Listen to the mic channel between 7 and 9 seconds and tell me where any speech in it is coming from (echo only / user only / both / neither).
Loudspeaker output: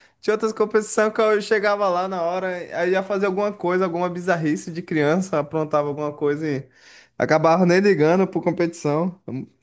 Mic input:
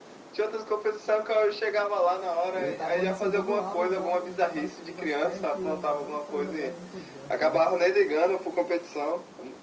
both